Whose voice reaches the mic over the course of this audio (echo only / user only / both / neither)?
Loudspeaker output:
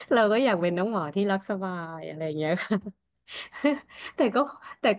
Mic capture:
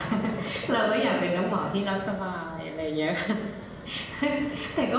echo only